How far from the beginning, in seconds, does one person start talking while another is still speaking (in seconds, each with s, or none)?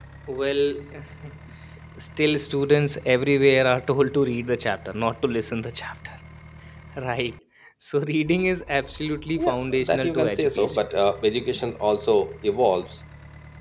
9.4 s